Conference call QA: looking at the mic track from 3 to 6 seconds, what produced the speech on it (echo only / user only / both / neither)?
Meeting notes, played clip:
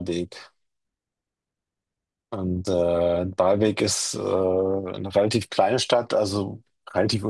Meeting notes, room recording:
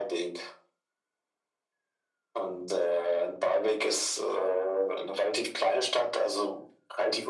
echo only